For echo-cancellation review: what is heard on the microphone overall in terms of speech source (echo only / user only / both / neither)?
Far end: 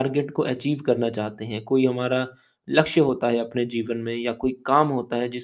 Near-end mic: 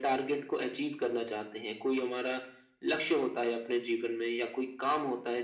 echo only